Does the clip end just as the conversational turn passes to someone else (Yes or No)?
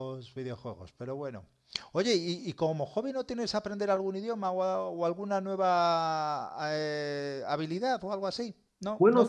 Yes